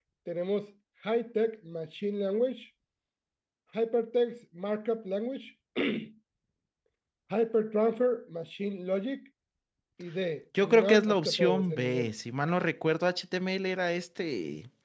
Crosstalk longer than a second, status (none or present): present